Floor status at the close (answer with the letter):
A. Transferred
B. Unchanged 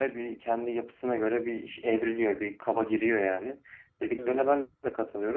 B